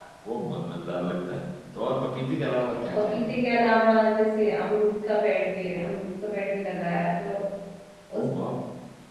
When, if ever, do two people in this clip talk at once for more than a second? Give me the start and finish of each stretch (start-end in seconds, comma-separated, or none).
none